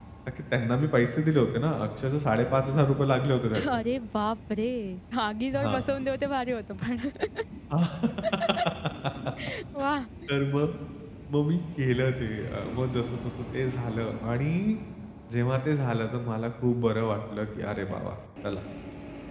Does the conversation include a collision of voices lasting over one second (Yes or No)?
No